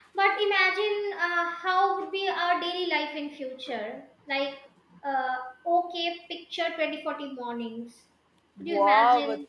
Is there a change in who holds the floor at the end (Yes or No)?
Yes